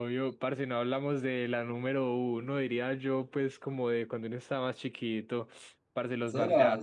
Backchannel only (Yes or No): No